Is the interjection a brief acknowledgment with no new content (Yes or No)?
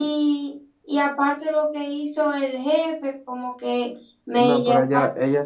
No